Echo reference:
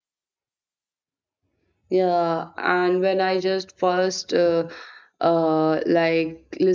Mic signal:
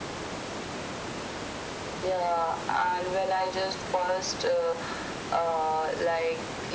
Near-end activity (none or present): none